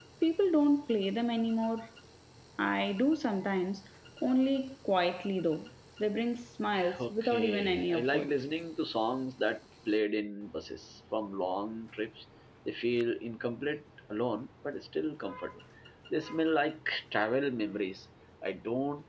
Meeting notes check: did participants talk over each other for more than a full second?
Yes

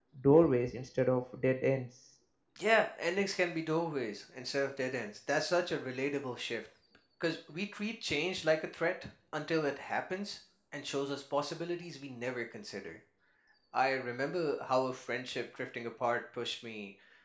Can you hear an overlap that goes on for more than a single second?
No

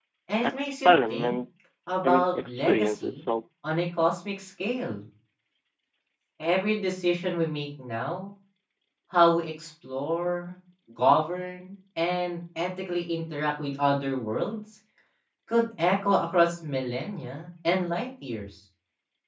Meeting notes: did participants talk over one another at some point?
Yes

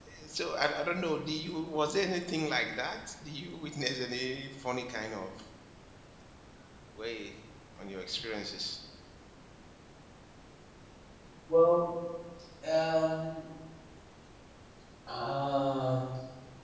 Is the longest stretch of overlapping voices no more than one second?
Yes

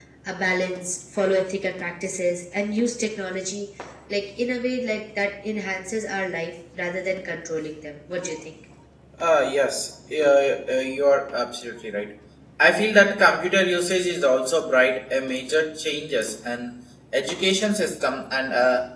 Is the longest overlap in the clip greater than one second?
No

